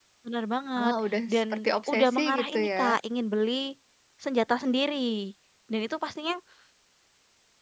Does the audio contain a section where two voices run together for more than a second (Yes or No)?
Yes